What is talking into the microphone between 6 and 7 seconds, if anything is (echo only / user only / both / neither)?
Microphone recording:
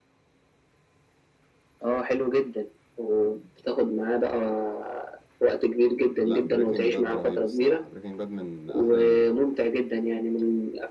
both